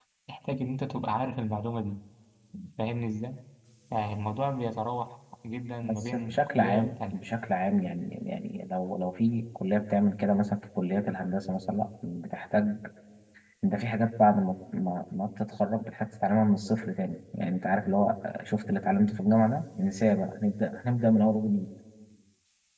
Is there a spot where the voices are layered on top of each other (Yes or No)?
Yes